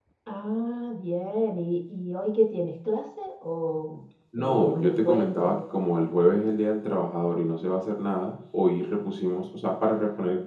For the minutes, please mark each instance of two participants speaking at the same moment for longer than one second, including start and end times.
4.4-5.7

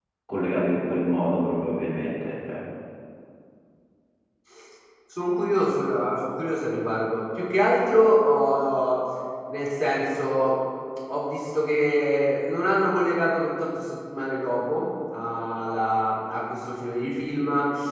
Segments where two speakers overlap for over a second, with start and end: none

